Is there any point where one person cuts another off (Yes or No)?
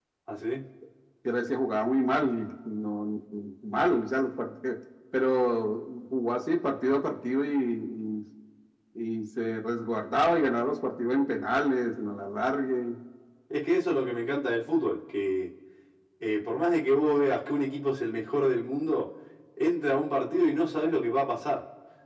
No